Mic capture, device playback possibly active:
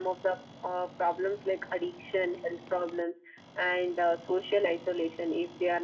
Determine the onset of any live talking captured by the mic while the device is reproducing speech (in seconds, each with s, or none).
none